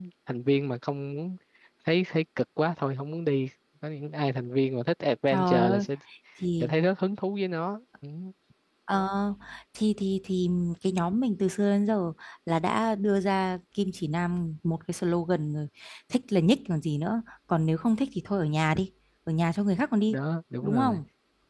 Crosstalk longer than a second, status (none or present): none